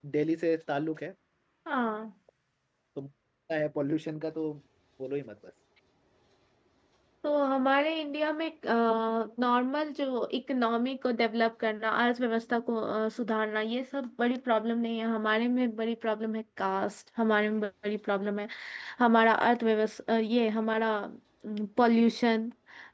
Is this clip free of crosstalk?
Yes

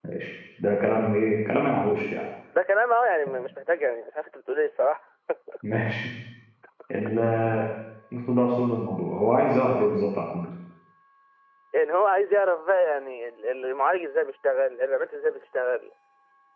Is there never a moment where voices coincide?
Yes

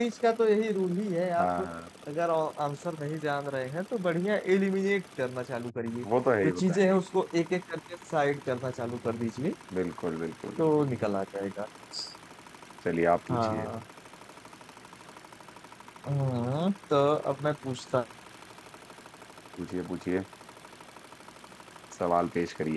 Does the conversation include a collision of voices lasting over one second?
No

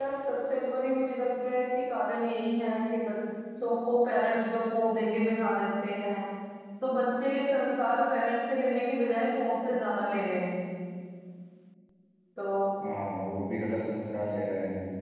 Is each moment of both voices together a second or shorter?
Yes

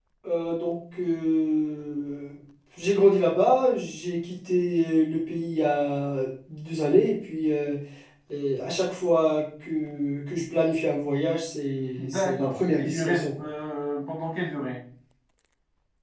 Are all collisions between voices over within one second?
No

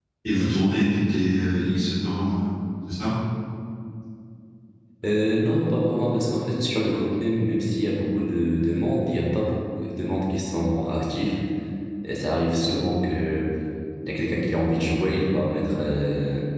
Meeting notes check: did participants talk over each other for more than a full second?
No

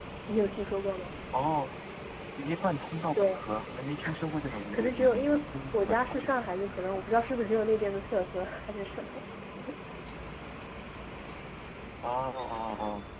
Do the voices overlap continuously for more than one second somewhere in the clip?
Yes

